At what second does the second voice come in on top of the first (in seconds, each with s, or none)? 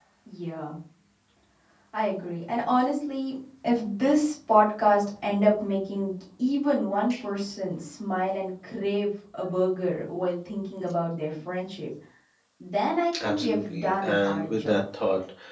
13.2 s